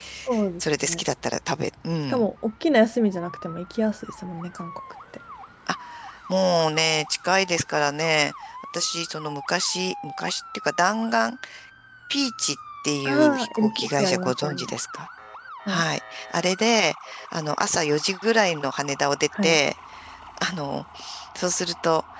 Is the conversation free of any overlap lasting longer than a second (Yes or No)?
No